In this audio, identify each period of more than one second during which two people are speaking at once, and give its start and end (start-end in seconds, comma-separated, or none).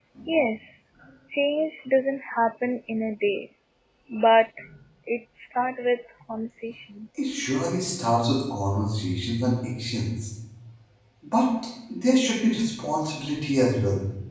none